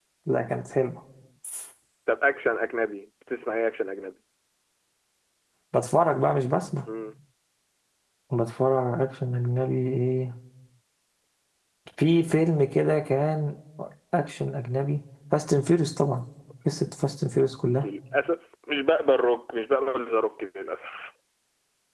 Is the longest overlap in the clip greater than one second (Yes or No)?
No